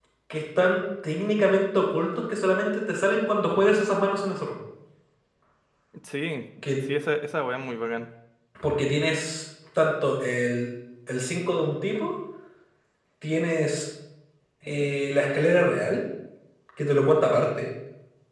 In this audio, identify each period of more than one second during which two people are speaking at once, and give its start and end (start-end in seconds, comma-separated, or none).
none